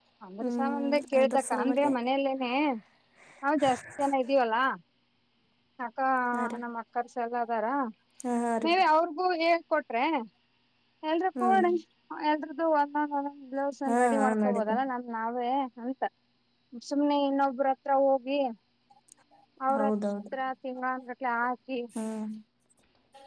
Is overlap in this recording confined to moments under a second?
No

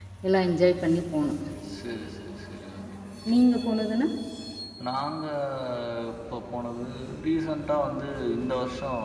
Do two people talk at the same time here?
No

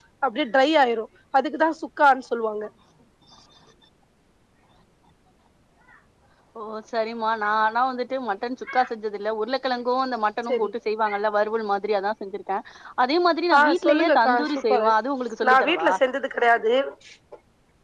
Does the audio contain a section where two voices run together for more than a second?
Yes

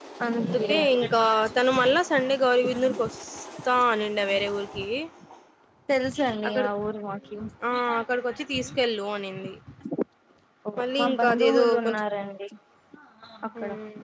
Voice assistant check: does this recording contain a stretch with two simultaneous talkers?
Yes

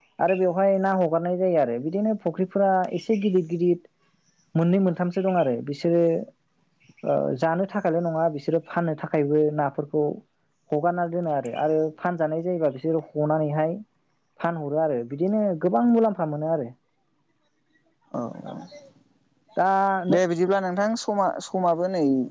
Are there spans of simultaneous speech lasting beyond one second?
No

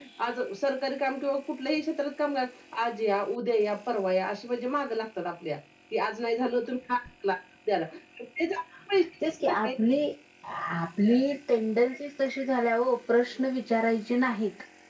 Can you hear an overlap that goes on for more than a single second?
No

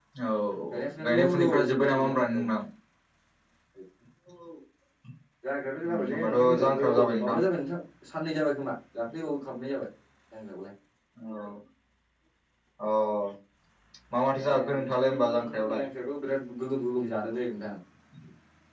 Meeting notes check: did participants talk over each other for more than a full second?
Yes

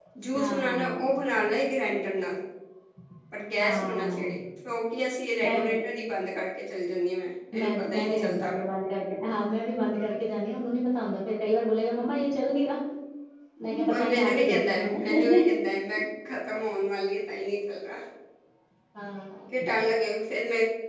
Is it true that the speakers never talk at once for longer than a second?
No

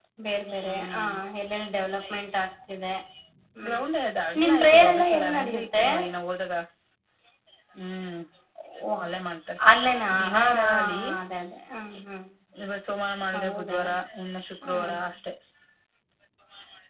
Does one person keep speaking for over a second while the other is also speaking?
Yes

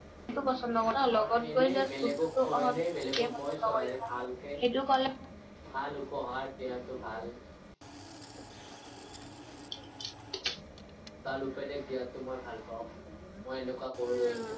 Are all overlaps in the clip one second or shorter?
No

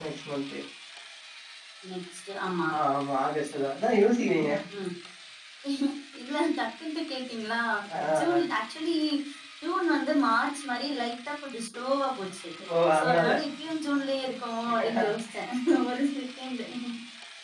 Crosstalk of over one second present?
No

